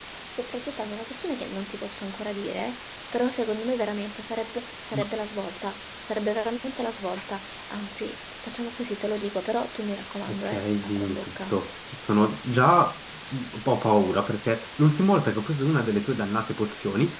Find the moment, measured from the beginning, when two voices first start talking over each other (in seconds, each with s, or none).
10.3 s